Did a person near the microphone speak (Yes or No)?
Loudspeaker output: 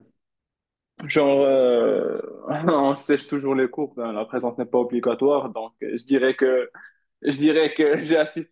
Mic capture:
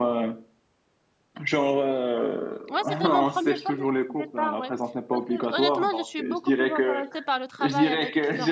Yes